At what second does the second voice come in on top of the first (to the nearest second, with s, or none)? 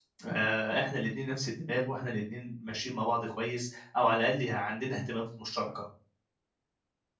none